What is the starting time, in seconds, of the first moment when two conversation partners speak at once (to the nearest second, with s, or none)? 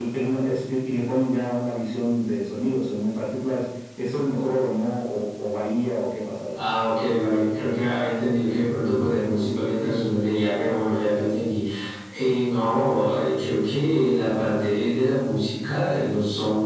none